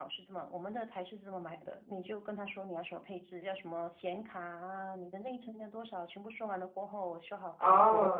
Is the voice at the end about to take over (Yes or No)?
Yes